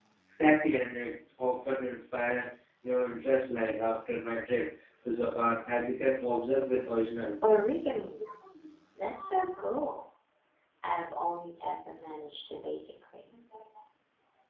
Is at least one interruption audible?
No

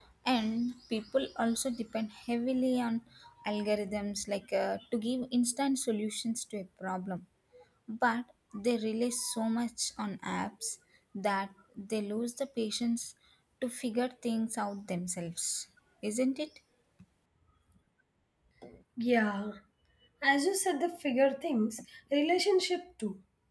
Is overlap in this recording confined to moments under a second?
Yes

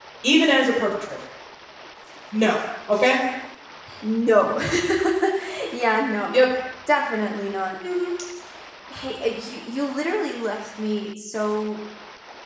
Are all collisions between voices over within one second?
Yes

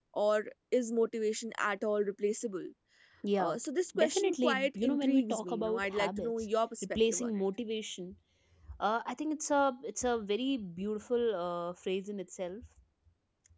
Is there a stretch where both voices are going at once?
Yes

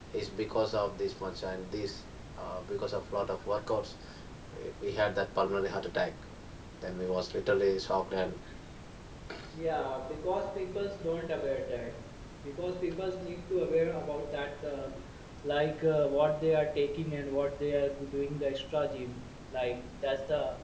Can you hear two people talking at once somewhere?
No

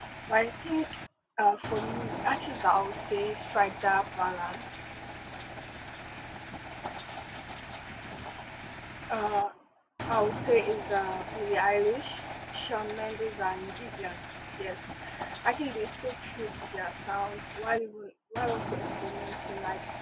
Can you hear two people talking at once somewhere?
No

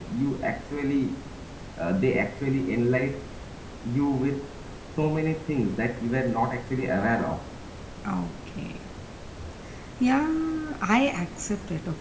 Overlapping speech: No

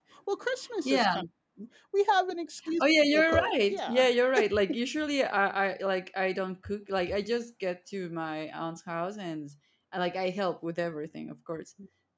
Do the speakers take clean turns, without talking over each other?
No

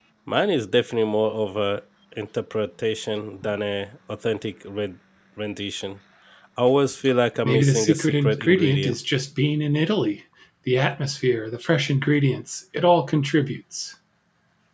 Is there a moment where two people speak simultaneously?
Yes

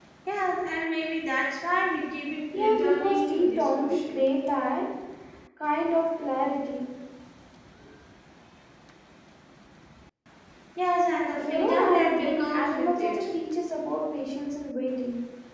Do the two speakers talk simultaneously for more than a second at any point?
Yes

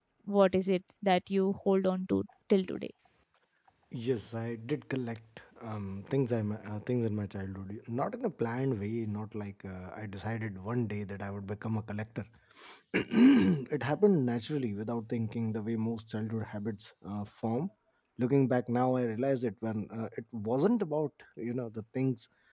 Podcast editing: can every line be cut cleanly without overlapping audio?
Yes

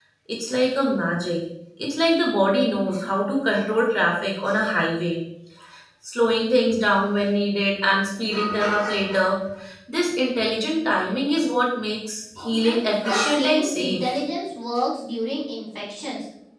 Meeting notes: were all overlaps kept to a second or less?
No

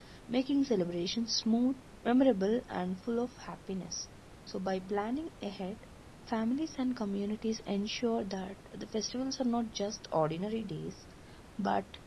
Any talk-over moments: No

